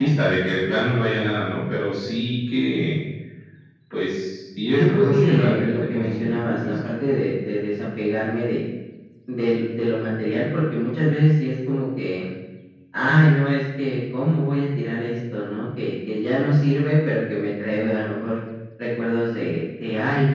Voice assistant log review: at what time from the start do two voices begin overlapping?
5 s

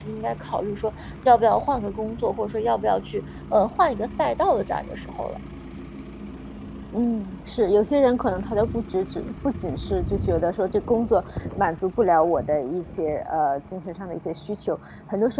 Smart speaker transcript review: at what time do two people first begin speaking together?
none

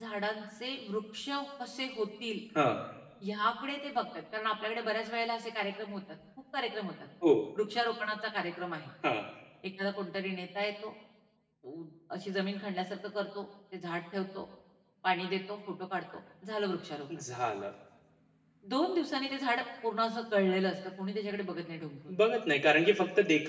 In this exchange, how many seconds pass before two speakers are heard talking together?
none

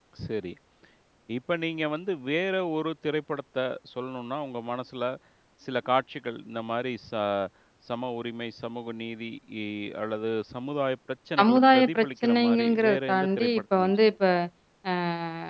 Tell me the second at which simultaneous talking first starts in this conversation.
11 s

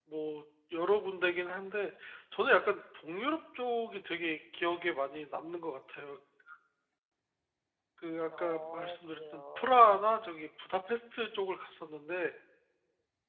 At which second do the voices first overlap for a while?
8 s

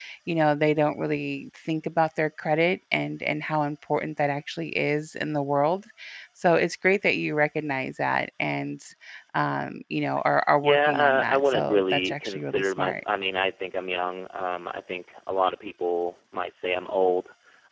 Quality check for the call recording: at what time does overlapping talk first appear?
11 s

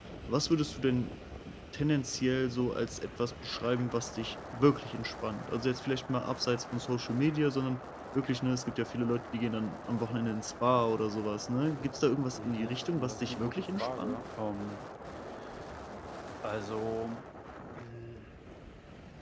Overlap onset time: 12 s

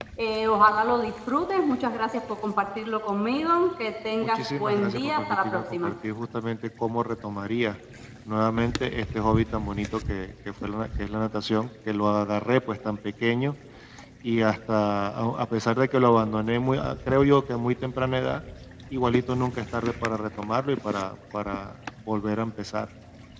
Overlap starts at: 4 s

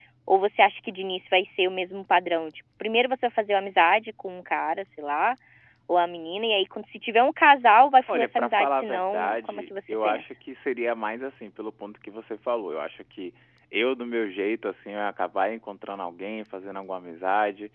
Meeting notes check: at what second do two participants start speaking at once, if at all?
8 s

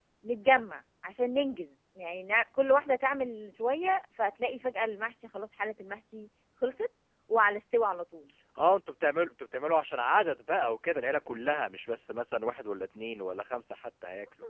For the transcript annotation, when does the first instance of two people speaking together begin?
none

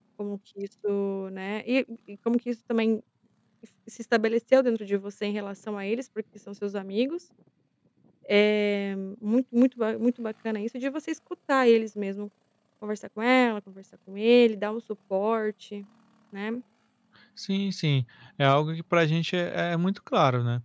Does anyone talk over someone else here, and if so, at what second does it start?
none

